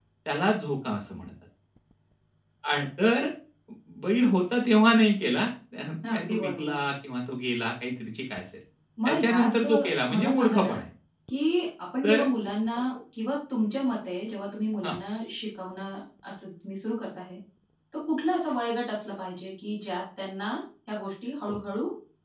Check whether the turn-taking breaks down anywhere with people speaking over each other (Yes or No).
Yes